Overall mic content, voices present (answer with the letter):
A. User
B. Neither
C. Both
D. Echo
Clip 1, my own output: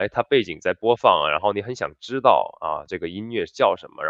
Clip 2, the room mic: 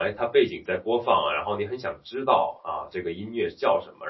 D